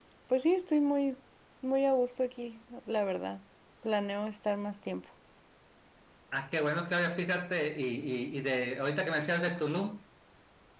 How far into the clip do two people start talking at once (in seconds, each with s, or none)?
none